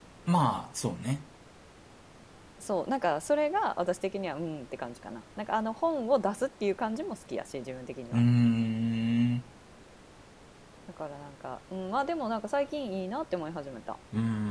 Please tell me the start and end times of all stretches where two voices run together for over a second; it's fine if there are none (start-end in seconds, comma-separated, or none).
none